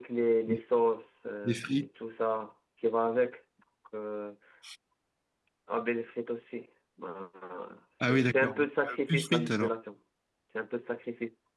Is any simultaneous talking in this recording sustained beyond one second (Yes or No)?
Yes